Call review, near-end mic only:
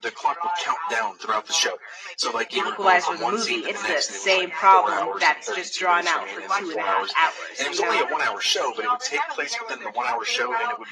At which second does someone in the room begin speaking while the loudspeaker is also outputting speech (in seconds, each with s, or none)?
2.5 s